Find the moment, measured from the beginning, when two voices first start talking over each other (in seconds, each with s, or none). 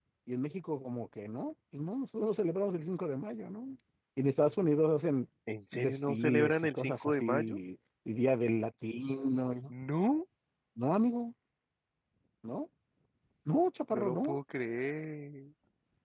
5.7 s